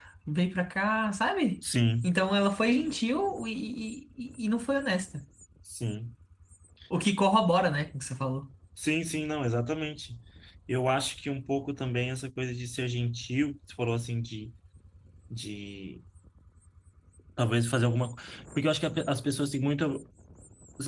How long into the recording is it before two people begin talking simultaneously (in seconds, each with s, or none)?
none